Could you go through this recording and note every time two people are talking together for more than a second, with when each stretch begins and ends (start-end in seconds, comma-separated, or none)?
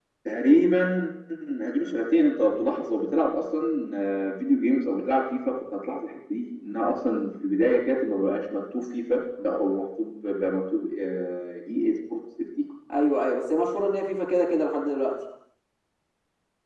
none